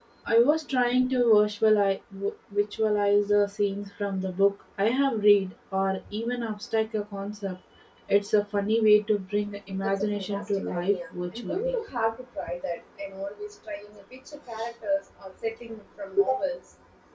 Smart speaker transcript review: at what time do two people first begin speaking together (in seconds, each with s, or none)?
10.0 s